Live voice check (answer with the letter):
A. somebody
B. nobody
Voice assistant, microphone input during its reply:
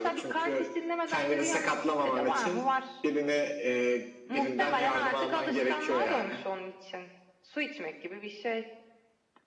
B